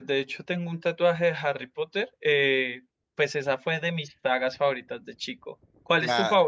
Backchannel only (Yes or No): No